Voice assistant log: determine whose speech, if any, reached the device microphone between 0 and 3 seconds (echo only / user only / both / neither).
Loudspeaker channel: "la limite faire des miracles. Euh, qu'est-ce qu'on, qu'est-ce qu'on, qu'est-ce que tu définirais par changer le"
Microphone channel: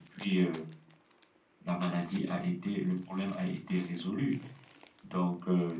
user only